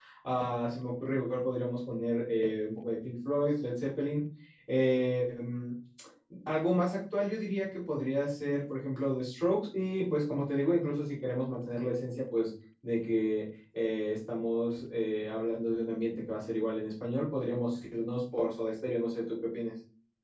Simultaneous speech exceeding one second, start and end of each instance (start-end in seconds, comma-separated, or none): none